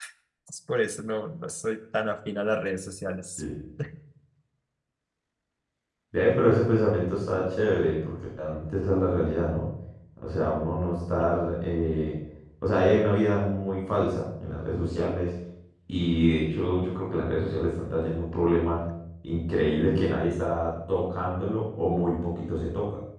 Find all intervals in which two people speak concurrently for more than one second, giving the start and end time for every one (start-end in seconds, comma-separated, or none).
none